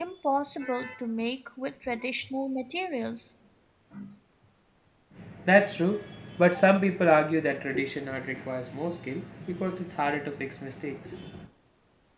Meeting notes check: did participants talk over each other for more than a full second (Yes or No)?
No